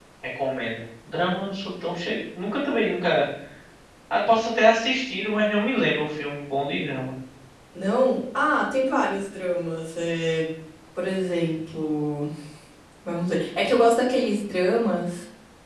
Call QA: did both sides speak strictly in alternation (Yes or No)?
Yes